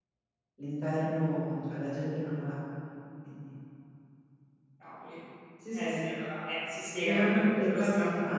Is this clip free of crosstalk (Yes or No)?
No